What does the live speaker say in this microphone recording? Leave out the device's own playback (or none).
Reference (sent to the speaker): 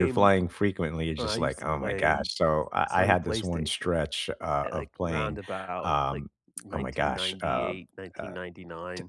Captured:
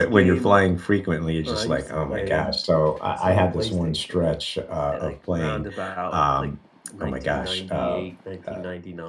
none